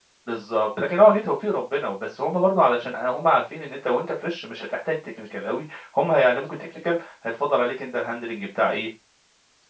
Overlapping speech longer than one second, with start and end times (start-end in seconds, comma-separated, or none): none